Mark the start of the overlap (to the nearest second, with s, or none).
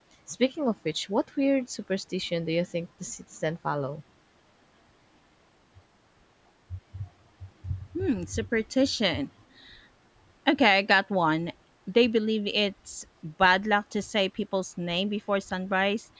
none